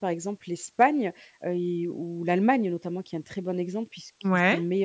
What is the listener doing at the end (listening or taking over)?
listening